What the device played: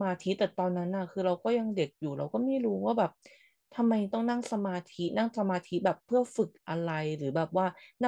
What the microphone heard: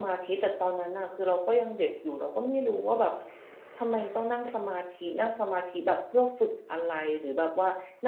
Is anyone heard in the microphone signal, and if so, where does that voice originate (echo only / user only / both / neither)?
echo only